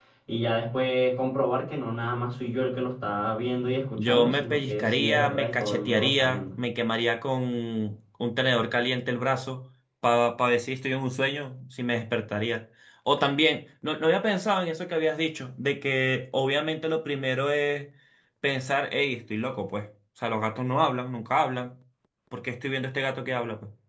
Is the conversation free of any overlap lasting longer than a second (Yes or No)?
No